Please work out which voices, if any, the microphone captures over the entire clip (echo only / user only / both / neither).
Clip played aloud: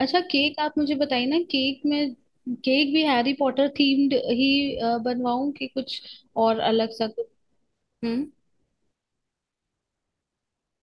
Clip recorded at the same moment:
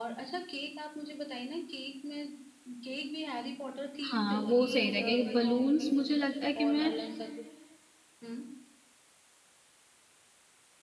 both